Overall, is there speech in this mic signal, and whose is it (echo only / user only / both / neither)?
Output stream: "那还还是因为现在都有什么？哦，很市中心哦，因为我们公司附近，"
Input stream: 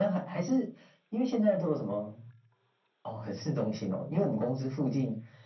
echo only